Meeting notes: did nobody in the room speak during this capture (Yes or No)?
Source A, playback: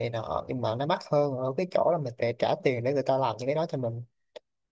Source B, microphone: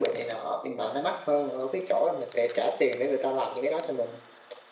Yes